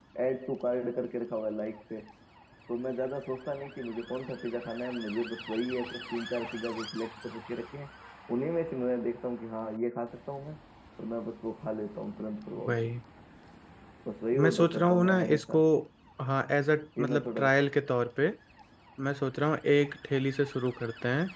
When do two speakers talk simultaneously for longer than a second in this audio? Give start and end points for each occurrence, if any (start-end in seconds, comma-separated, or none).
14.4-15.6